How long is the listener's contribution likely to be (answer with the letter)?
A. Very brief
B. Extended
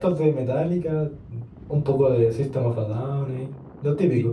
B